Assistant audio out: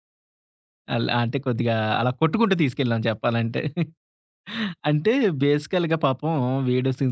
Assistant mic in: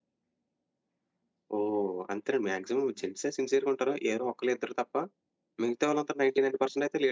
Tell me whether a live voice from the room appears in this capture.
Yes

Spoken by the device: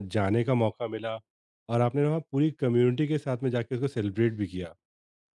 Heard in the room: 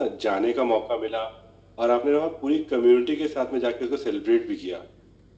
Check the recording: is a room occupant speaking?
No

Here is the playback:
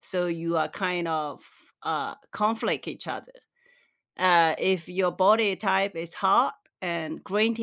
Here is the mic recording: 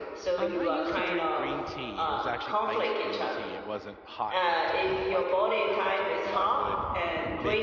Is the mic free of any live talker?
No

